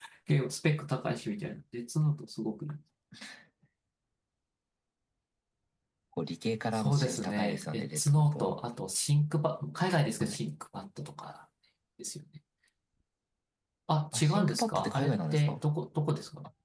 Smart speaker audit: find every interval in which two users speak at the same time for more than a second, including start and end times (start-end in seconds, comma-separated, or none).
6.8-8.6, 14.1-15.6